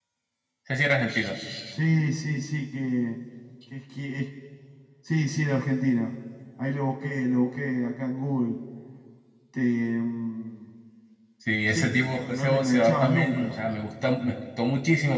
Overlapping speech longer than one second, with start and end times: 11.7-13.5

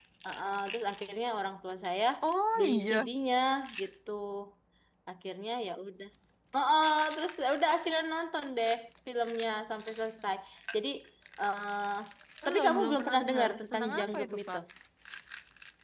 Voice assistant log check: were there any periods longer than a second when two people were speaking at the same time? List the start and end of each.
12.4-14.6

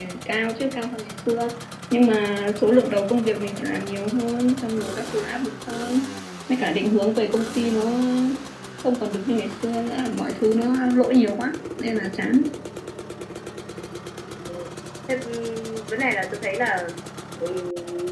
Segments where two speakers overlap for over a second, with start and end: none

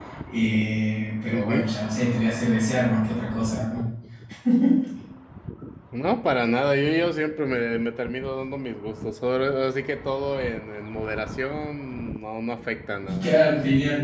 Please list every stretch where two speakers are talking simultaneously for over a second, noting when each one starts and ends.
none

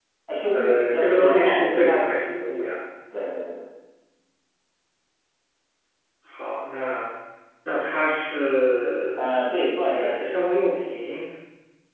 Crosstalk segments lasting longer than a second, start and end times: 0.5-2.7

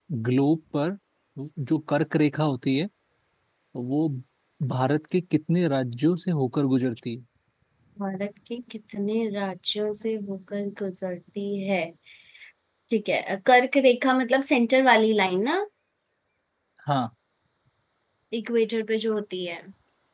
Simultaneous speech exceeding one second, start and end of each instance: none

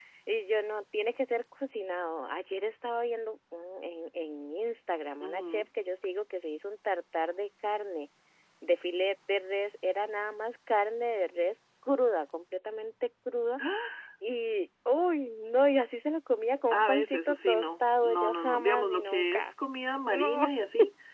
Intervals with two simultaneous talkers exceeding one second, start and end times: 16.7-19.5

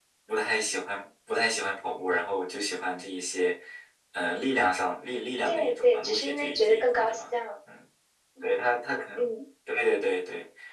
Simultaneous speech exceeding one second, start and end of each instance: 5.5-7.3

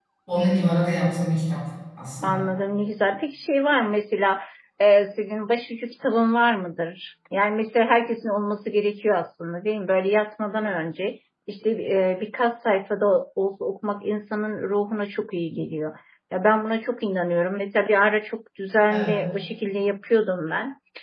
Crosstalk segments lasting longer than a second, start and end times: none

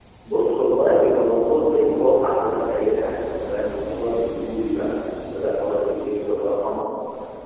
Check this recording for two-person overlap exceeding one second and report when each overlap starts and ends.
none

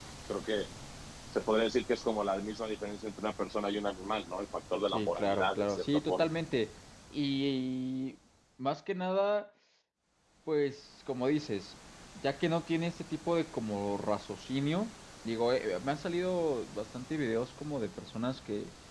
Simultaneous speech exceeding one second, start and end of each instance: 4.9-6.2

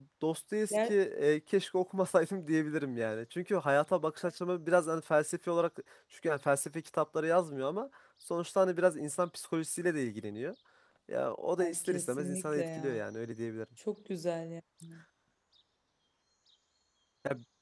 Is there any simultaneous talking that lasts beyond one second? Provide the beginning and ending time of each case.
11.6-13.0

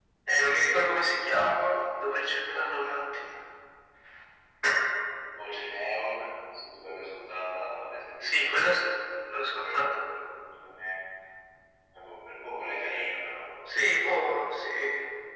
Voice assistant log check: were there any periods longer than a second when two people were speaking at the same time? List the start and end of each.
none

